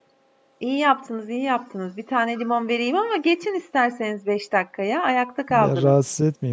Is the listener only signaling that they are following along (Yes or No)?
No